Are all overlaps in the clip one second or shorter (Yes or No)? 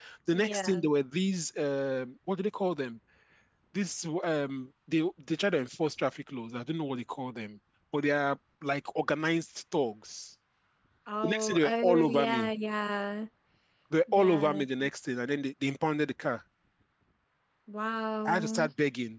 No